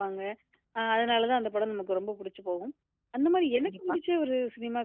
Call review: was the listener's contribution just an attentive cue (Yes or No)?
Yes